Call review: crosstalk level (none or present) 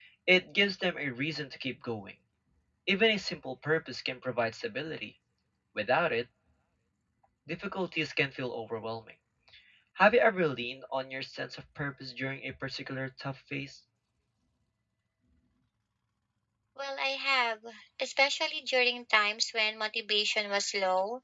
none